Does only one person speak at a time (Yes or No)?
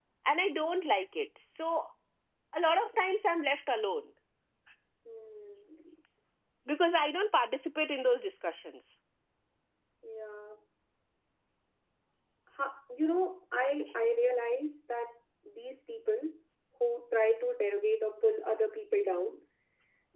Yes